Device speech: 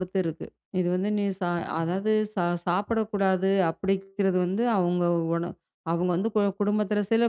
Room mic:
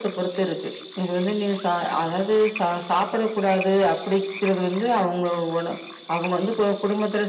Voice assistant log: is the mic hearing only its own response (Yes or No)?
Yes